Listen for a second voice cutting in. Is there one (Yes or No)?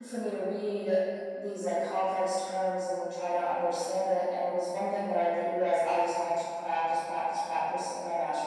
No